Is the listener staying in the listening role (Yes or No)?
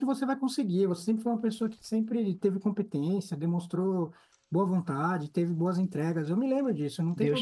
No